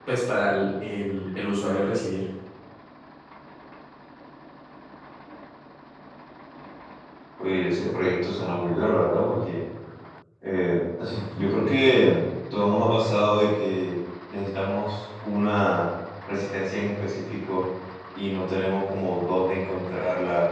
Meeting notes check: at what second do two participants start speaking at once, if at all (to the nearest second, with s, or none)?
none